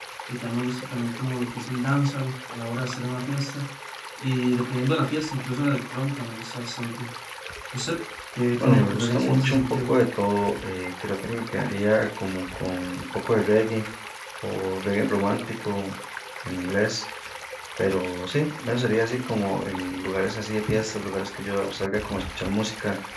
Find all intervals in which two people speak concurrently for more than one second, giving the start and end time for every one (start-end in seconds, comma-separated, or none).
8.6-9.9